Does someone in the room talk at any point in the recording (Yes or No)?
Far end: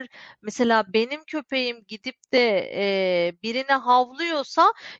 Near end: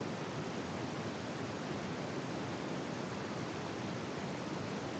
No